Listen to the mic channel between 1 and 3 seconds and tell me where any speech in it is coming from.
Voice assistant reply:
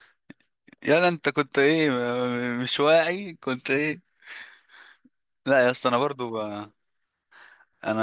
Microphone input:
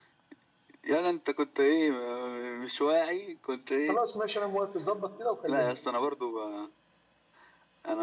echo only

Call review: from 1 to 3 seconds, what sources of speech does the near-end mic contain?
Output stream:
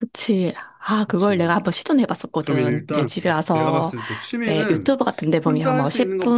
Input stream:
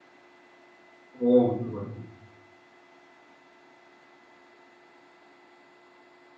user only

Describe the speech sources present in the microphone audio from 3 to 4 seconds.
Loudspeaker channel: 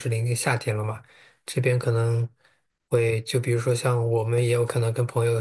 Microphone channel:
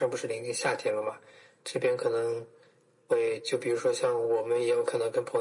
echo only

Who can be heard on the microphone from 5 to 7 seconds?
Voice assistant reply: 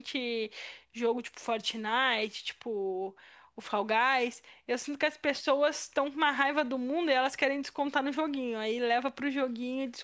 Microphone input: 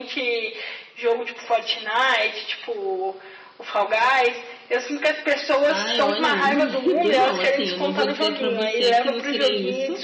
both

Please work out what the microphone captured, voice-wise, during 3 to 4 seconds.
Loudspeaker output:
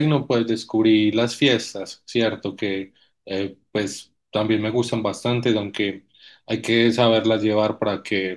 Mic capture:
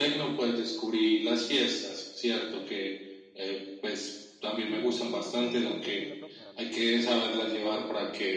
echo only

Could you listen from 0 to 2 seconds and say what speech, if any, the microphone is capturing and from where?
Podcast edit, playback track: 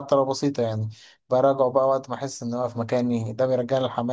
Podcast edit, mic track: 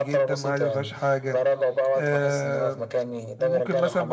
both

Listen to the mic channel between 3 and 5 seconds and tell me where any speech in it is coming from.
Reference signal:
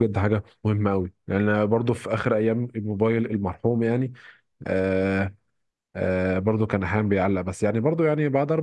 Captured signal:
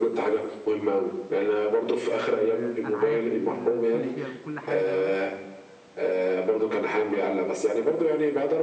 both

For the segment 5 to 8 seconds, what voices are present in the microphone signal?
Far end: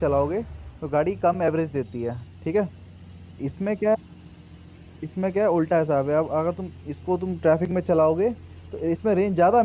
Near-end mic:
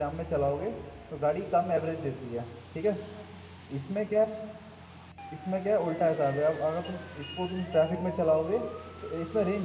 echo only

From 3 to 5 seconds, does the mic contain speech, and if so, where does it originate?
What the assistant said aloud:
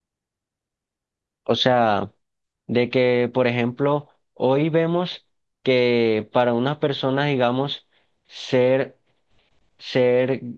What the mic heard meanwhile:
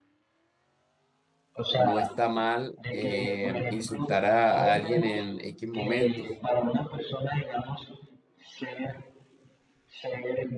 both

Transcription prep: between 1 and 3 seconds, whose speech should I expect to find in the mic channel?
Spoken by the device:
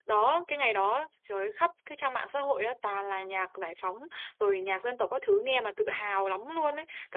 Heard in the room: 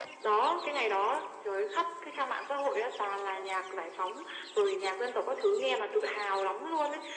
echo only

